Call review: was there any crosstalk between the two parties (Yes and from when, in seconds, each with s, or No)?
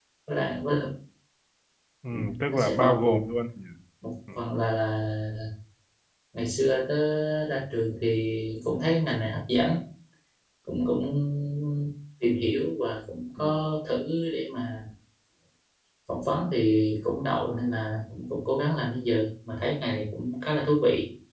Yes, from 2.1 s